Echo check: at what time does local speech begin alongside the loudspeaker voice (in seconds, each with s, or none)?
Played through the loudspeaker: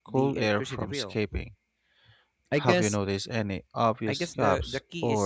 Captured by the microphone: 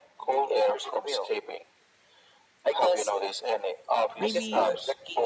4.2 s